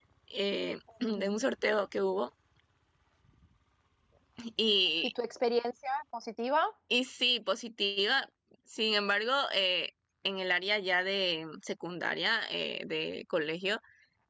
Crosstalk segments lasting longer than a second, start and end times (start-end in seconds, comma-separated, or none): none